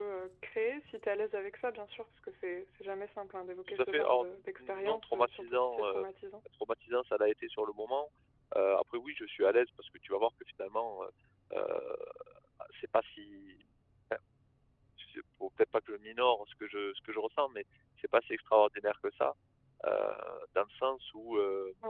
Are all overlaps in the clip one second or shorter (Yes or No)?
No